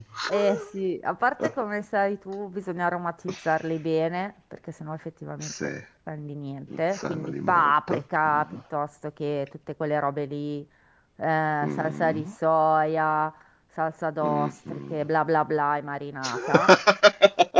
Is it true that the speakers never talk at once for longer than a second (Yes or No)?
No